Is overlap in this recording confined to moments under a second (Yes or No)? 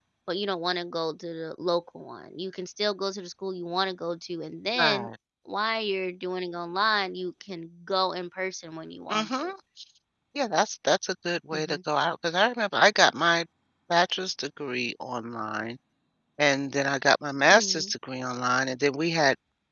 Yes